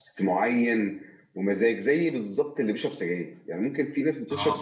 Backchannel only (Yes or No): Yes